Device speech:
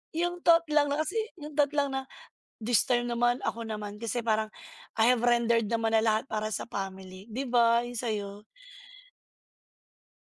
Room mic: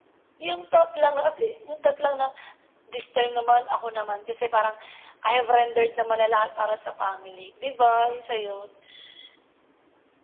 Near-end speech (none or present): none